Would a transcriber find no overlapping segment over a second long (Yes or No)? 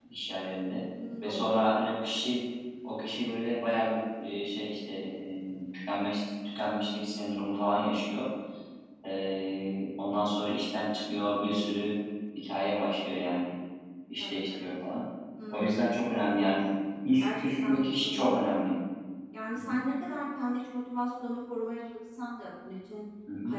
No